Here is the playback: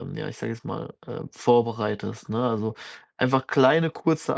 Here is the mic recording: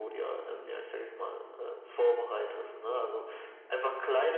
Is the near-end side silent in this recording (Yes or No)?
No